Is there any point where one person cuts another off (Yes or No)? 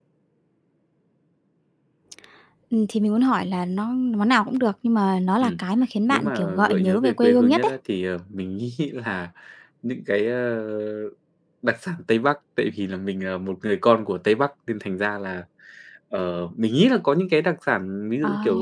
Yes